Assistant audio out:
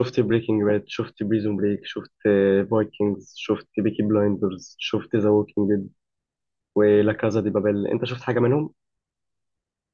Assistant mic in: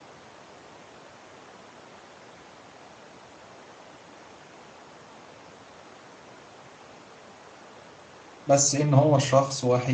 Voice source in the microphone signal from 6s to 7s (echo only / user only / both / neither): neither